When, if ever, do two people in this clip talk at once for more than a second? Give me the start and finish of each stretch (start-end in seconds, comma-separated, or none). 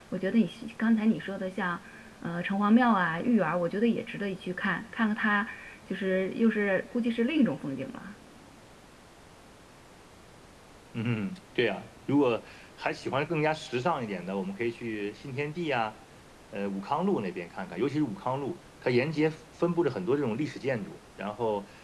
none